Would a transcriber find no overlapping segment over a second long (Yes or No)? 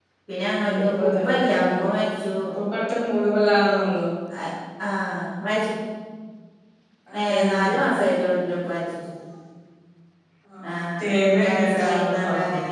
No